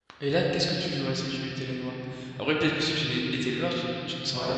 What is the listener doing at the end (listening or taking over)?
taking over